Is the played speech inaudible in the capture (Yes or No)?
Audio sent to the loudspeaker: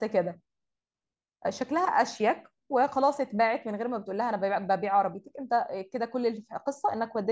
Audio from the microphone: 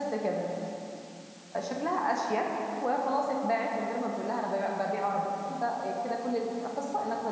No